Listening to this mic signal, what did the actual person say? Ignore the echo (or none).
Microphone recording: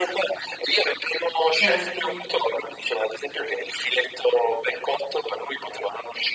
Certo.